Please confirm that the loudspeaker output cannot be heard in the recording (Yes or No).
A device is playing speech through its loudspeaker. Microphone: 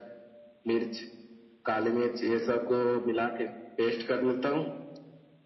No